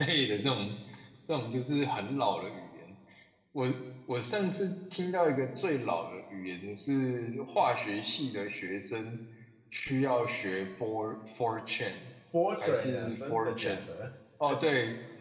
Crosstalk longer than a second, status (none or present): present